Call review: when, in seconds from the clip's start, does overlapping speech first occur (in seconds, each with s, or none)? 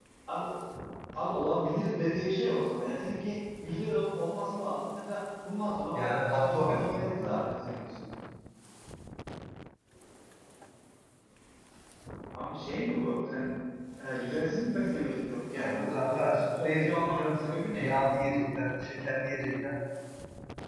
6.0 s